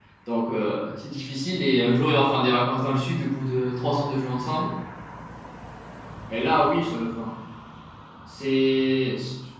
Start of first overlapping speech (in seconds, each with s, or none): none